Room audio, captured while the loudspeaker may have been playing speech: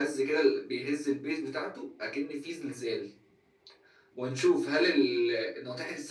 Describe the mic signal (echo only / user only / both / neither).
echo only